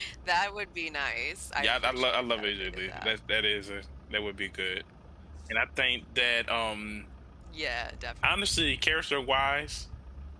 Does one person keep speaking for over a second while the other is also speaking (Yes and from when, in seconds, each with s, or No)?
Yes, from 1.6 s